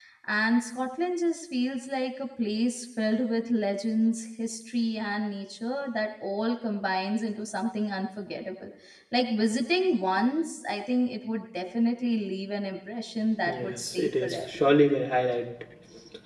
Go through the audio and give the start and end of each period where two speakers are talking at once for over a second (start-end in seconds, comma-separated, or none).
13.5-14.7